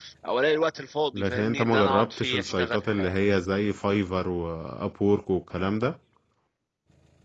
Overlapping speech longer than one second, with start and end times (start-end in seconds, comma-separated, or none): 1.1-3.2